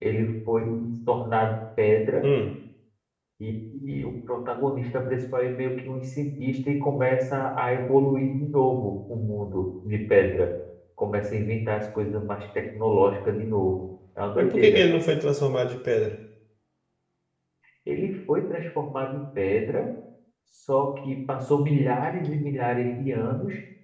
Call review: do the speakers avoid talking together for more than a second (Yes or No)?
Yes